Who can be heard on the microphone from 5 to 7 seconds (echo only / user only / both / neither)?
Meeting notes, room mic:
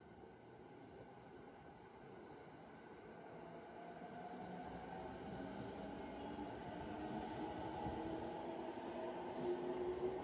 neither